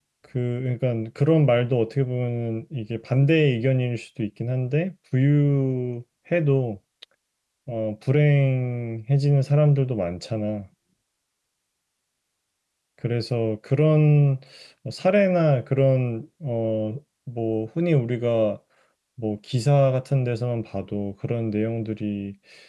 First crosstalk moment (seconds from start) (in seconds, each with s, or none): none